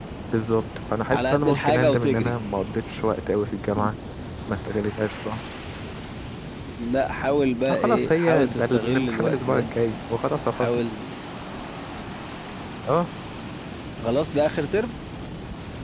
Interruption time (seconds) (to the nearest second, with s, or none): 1 s